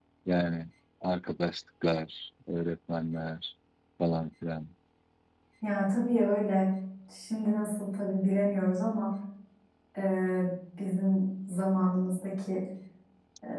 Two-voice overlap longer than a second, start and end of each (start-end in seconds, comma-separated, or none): none